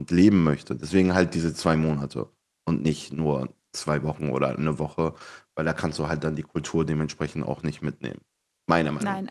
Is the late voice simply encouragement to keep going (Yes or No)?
No